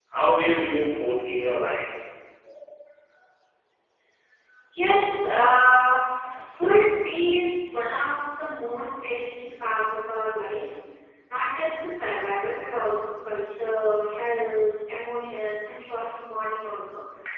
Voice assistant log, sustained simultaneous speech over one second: none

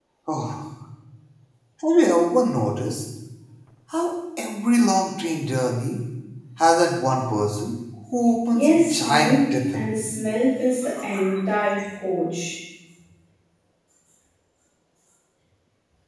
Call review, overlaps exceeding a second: present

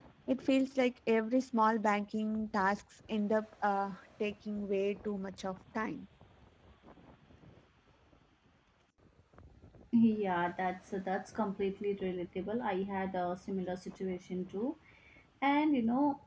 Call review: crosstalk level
none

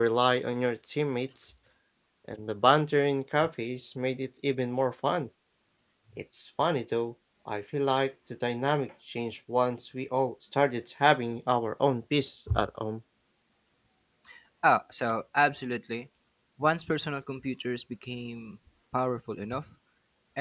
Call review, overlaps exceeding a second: none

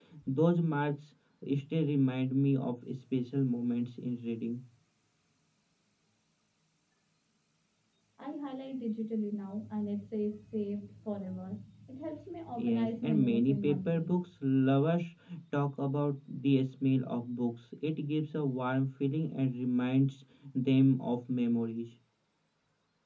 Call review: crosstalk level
present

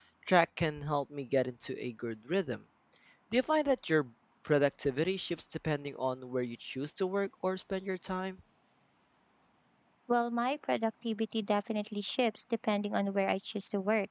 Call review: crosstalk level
none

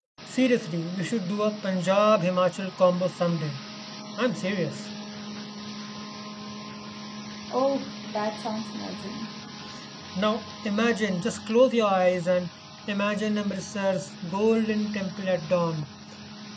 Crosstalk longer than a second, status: none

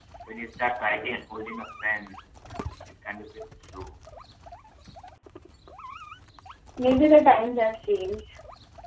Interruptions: none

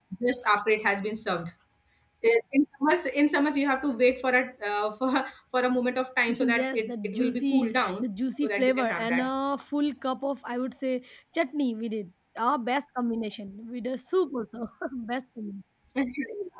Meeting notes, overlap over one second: present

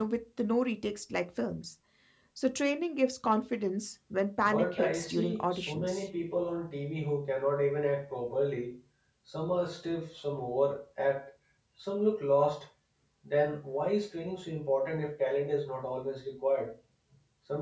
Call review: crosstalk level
present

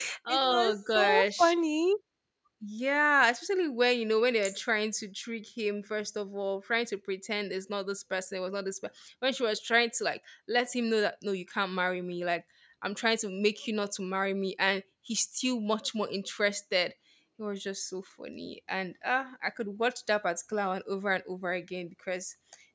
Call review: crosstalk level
present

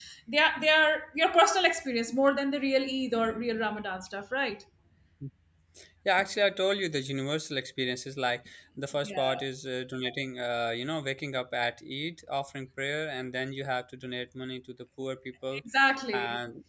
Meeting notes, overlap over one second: none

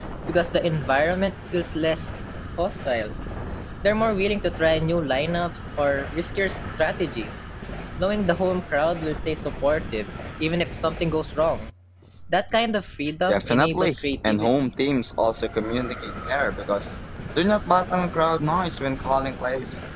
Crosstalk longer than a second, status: present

